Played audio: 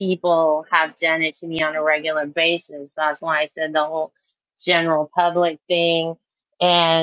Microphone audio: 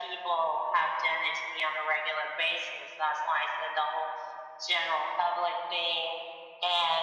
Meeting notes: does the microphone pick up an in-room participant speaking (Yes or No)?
No